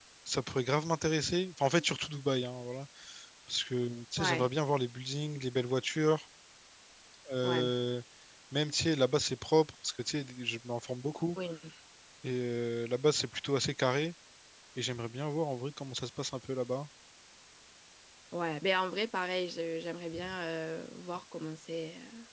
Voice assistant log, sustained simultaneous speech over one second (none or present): none